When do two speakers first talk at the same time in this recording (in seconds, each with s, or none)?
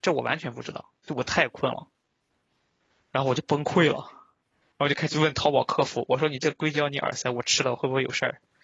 none